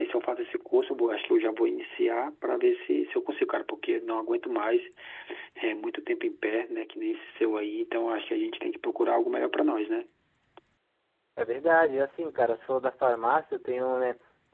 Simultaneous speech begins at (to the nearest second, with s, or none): none